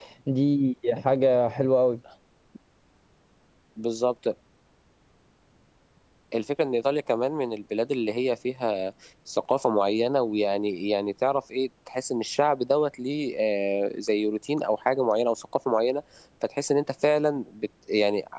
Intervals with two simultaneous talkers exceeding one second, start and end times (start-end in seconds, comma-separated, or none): none